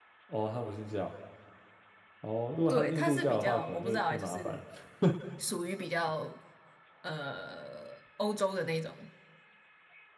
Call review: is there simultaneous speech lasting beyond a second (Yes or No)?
Yes